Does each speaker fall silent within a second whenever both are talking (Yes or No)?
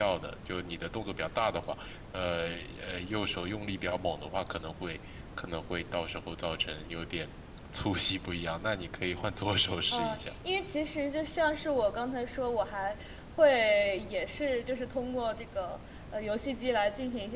Yes